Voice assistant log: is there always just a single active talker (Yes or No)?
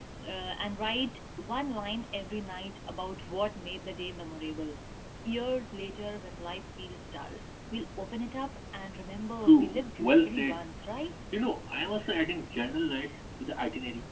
No